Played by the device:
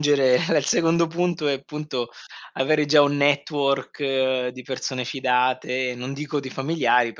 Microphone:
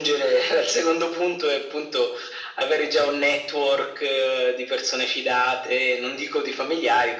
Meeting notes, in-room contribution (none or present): none